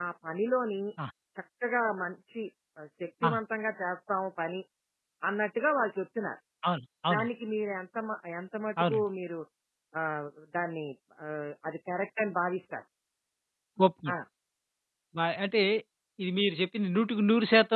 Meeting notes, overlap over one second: none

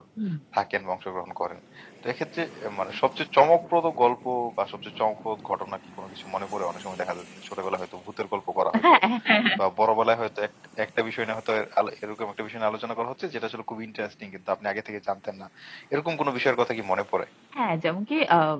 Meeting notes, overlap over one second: none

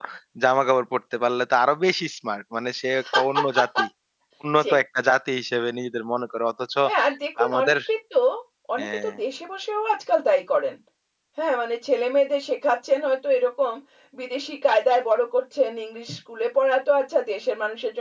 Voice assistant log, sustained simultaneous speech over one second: none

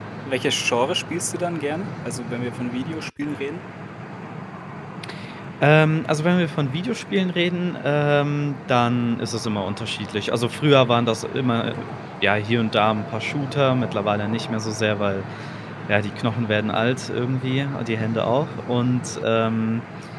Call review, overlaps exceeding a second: none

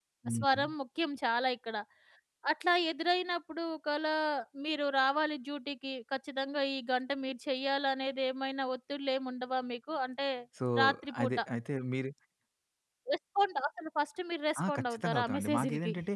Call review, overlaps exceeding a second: present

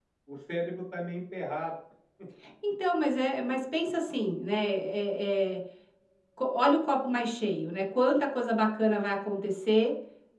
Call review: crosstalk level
none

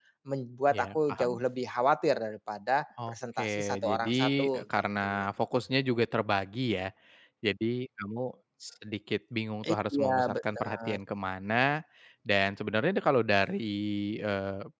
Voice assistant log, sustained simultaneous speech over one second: present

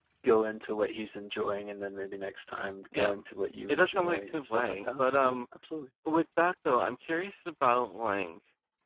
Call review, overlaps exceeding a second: present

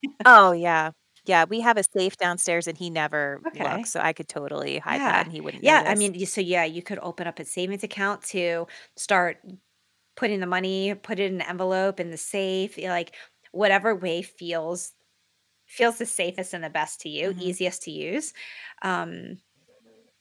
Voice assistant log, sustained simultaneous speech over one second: present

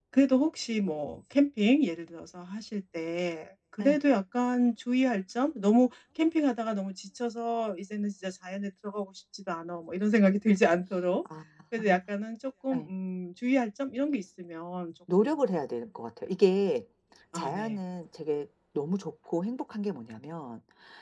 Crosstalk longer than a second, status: none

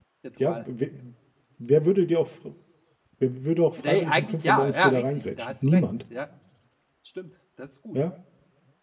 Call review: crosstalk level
present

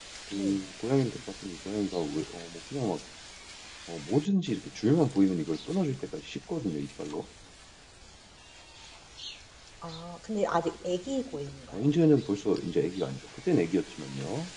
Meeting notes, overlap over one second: none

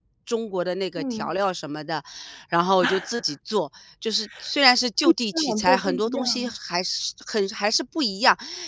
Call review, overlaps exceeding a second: present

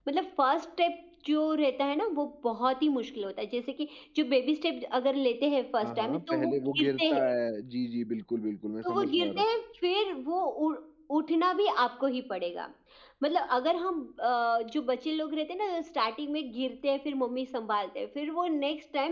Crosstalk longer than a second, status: present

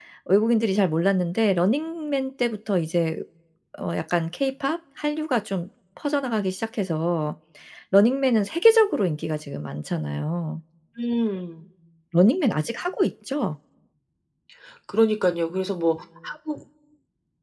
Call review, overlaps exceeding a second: none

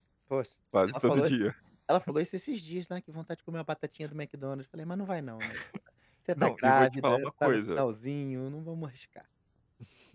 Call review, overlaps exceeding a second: present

